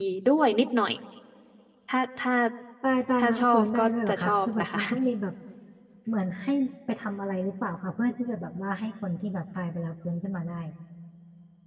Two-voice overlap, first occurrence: 3 s

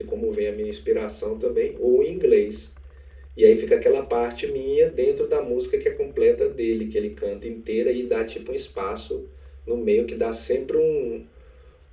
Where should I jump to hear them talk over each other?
none

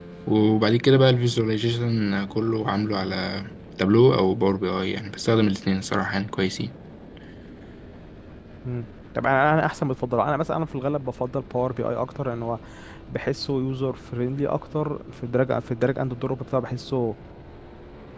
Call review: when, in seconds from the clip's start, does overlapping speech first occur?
none

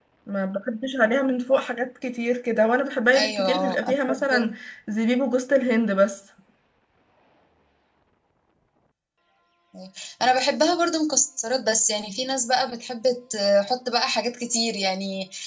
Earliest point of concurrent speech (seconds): 3 s

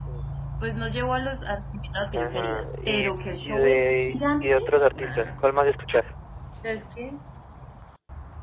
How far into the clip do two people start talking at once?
2 s

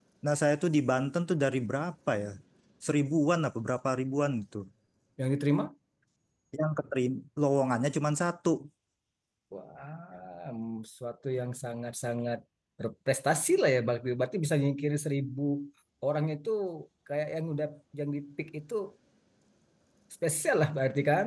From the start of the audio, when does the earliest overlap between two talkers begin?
none

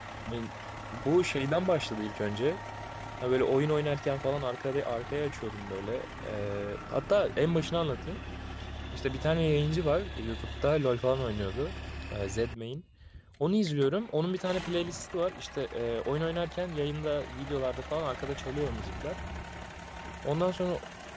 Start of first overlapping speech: none

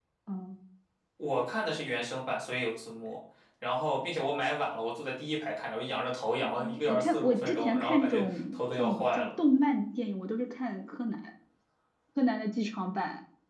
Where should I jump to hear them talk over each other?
6 s

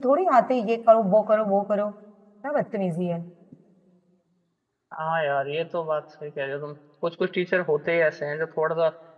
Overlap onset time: none

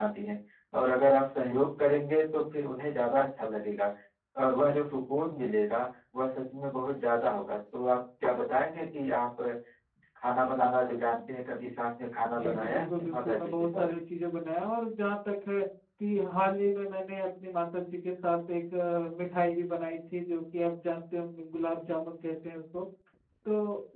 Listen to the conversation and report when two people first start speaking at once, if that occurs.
12 s

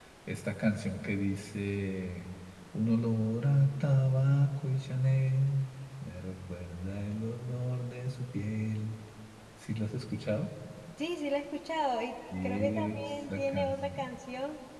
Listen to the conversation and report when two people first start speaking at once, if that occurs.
12 s

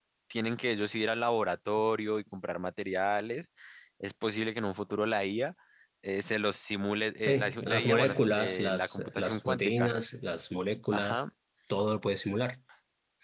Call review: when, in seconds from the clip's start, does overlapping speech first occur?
7 s

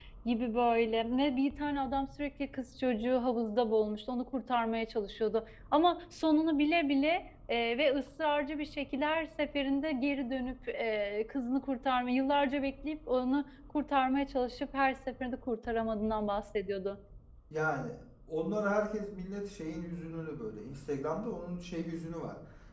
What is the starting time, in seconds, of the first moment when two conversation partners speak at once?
none

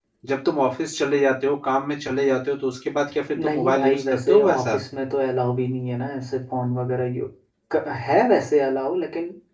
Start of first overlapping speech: 3 s

